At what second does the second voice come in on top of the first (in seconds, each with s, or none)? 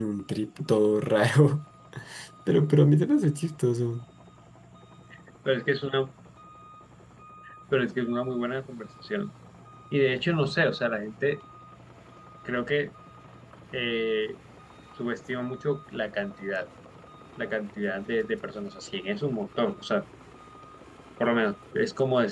none